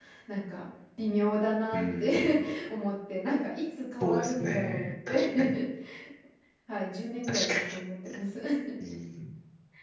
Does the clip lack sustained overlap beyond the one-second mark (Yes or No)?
No